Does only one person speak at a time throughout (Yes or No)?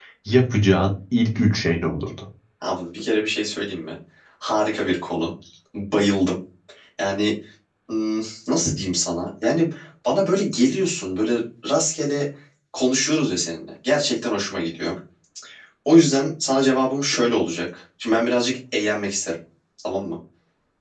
Yes